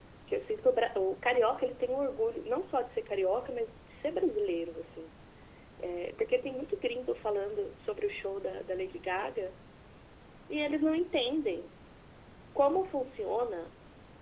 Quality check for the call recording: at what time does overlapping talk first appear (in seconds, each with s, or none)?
none